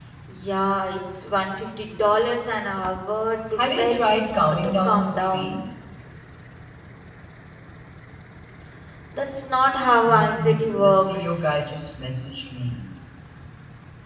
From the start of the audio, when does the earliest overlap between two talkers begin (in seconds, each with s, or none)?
3.6 s